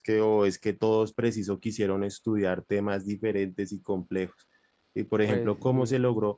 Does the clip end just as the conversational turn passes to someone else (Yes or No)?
No